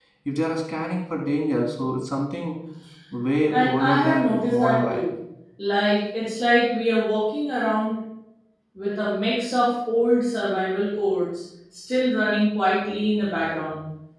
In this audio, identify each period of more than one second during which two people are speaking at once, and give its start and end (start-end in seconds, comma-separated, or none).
3.5-5.1